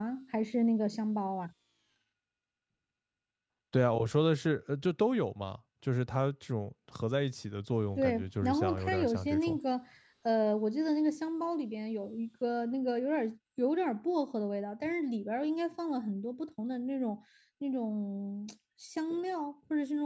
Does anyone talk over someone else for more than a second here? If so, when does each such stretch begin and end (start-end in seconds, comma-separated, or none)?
8.0-9.6